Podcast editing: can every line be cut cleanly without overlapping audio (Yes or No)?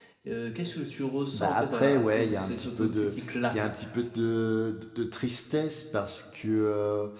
No